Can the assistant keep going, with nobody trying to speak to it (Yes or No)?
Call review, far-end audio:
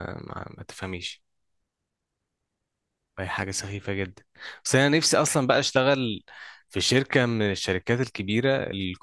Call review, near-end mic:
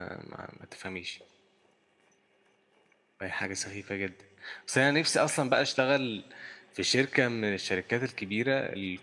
Yes